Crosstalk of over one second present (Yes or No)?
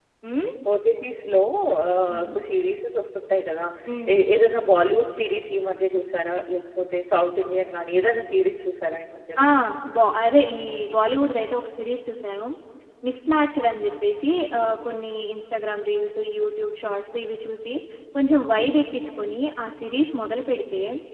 No